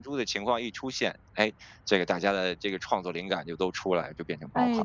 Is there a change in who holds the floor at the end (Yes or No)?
Yes